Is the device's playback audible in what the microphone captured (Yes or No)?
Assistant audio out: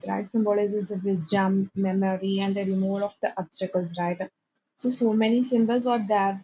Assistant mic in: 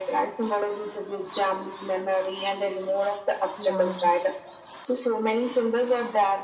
Yes